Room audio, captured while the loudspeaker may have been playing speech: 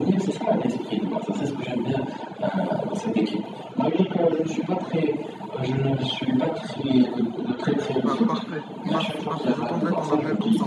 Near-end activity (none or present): present